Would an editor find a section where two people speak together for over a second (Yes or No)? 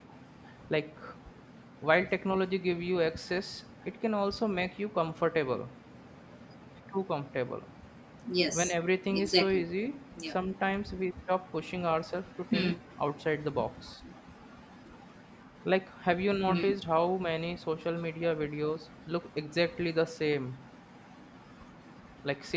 No